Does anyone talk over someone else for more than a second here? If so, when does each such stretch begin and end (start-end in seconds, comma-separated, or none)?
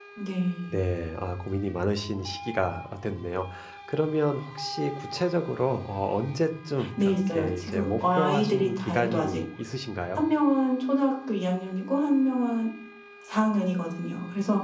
7.0-9.4